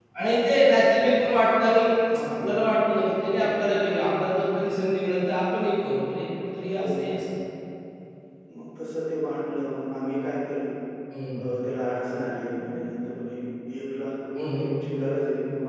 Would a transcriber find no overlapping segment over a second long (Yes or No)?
Yes